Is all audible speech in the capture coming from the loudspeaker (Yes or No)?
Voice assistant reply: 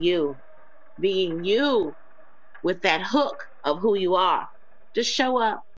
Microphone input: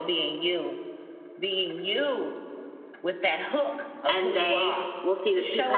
No